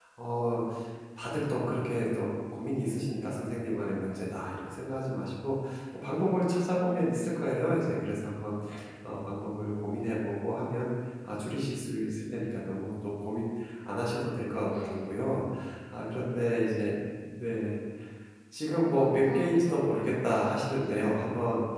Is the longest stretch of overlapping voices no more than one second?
No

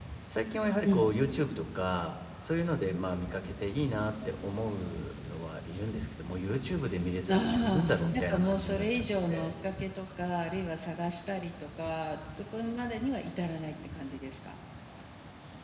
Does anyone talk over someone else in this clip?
Yes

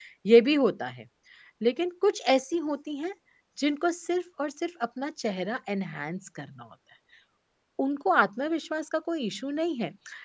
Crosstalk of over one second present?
No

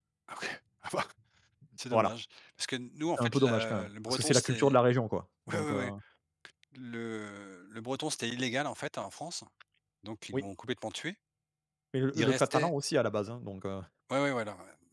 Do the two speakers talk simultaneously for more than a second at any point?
Yes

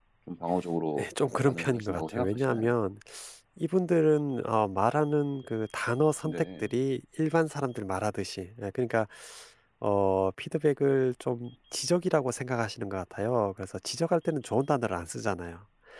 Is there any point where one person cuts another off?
Yes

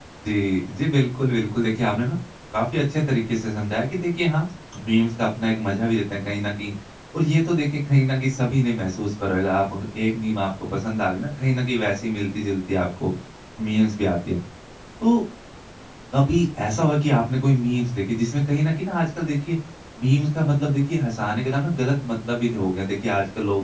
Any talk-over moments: No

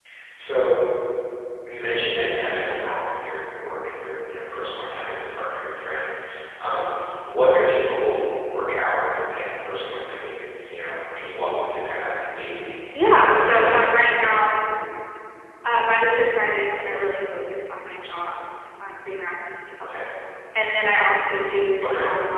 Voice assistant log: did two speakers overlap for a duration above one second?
Yes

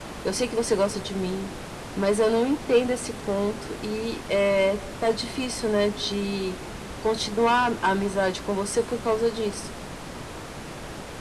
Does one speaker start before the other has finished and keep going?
No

